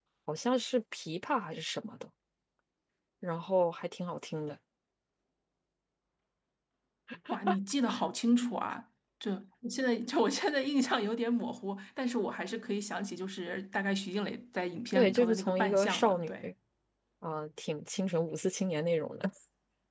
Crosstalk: present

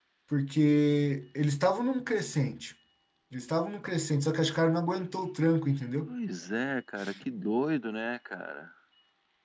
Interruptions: none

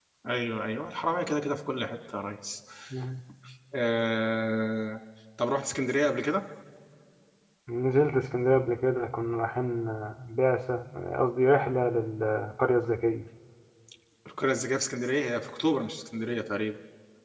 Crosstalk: none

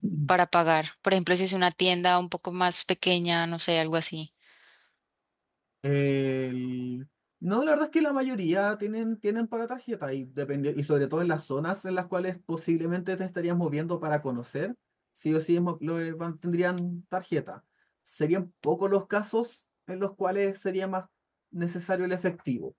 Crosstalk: none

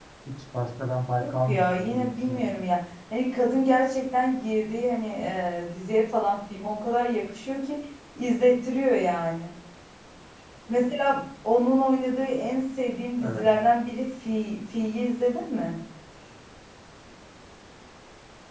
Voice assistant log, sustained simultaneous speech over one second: present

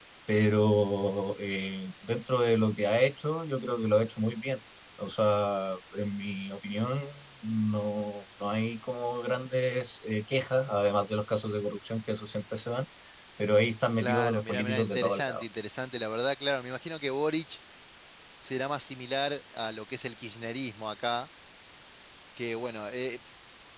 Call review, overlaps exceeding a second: present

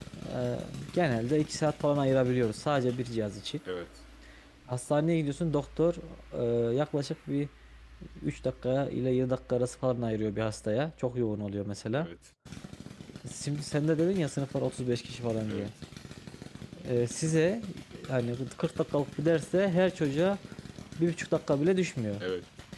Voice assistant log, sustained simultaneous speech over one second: none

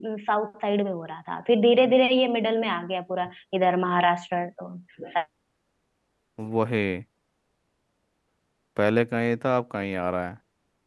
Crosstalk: none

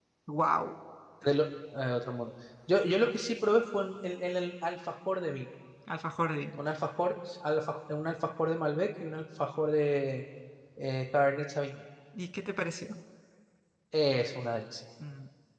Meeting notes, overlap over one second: none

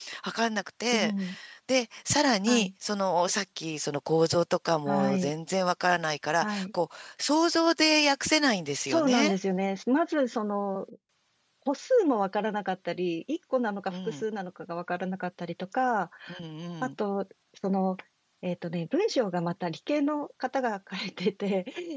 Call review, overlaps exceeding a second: none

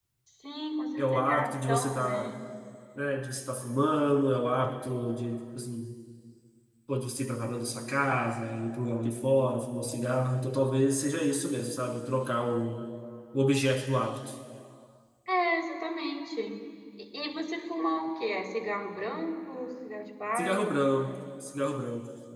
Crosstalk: present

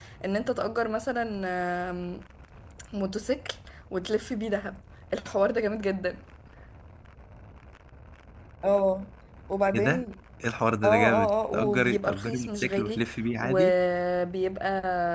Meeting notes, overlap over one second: present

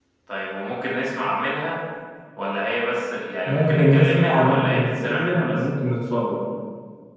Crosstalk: present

